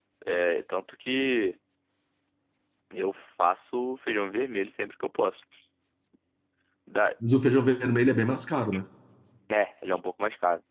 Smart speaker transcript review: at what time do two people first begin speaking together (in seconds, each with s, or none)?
none